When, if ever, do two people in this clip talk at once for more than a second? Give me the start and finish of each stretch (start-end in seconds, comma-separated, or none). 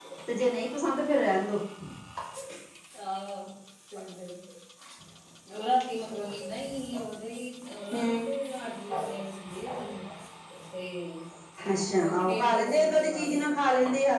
12.0-13.4